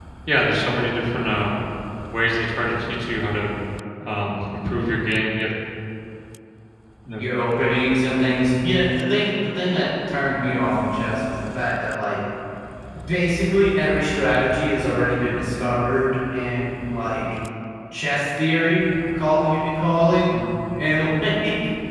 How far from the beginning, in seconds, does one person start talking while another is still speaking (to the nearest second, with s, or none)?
none